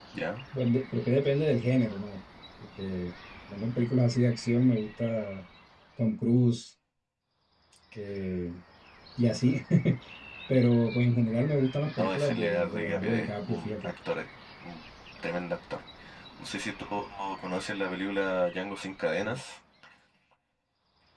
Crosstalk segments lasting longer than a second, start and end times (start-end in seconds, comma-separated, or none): 12.0-13.9